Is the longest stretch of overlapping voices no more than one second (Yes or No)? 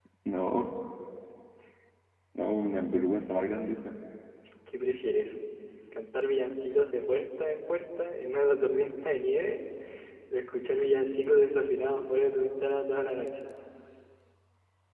Yes